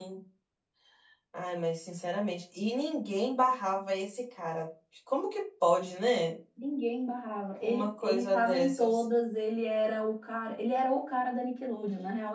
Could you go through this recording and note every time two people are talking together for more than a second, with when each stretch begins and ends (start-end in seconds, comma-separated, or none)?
7.6-9.0